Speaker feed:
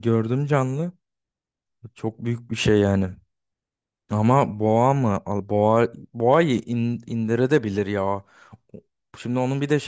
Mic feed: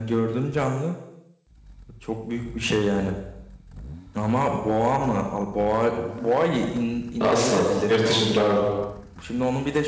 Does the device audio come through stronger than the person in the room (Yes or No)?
No